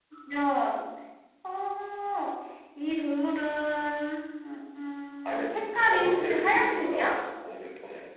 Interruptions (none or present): present